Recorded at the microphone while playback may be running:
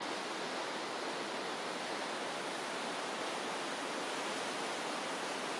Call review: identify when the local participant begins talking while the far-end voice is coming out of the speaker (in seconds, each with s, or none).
none